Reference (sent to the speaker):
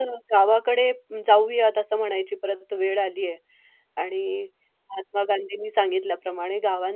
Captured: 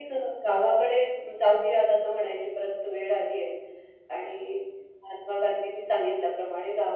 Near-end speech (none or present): none